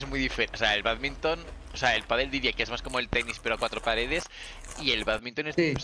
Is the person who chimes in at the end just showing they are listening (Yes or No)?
Yes